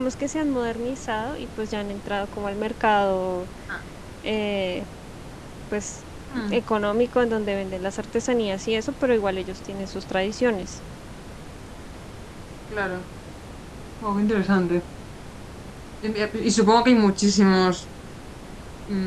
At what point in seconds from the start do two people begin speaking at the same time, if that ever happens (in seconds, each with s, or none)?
none